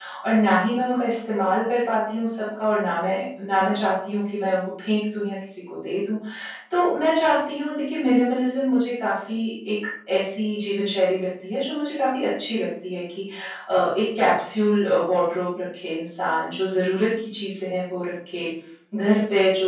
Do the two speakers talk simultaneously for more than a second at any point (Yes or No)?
No